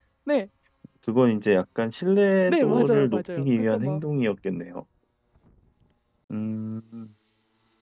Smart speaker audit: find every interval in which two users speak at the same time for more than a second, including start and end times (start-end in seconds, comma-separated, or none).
2.5-4.0